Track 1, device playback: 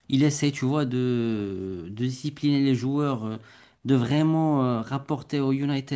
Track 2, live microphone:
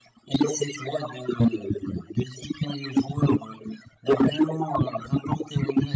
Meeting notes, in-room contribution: none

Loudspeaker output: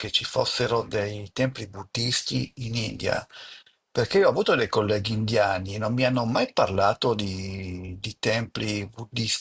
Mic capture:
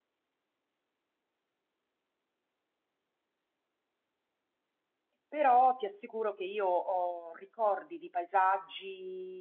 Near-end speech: present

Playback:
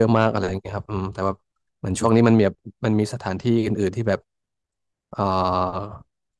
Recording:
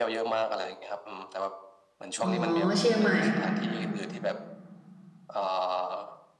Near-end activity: present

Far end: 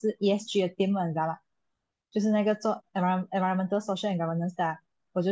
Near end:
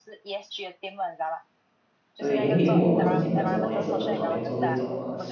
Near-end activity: present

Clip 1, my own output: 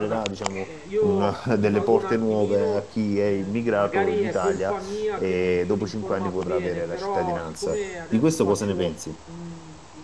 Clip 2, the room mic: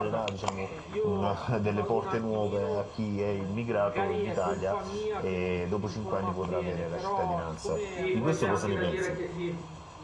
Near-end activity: present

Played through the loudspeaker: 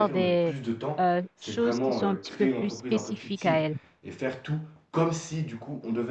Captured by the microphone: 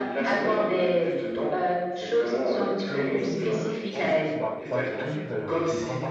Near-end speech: present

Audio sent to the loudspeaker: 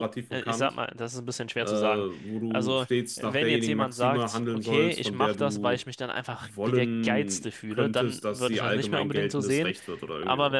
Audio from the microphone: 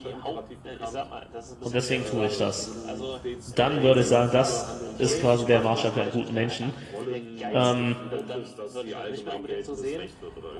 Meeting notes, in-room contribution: present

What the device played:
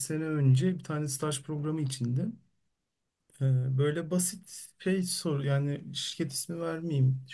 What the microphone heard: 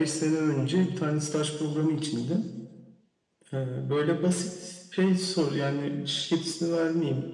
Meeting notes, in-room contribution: none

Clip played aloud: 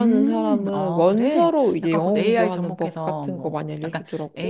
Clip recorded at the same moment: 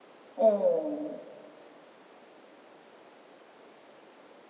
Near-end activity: present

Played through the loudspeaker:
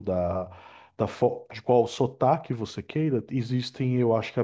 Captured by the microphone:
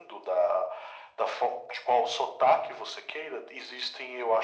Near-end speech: none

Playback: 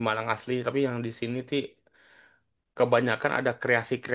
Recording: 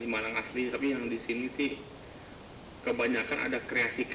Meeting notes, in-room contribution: none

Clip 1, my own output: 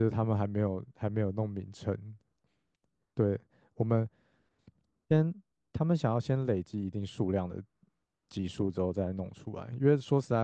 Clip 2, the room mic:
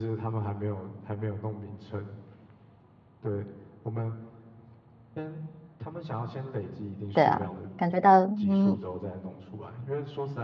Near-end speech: present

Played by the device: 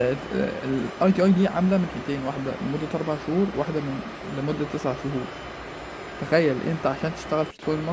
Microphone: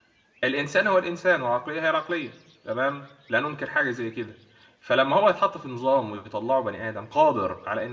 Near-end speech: present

